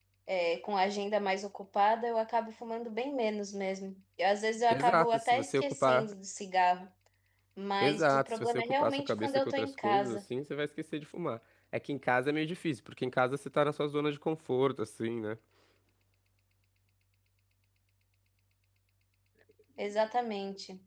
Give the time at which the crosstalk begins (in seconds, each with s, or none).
4.7 s